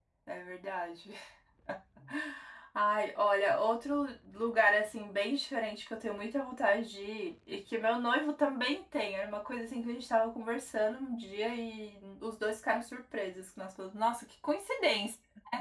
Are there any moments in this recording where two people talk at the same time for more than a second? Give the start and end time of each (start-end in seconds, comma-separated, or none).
none